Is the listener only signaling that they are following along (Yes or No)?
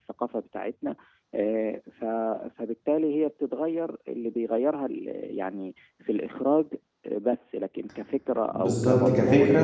No